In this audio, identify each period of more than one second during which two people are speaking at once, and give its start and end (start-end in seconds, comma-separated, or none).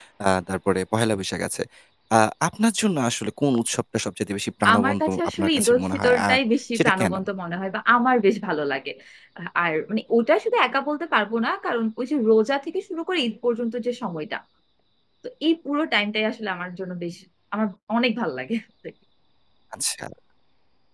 4.7-6.4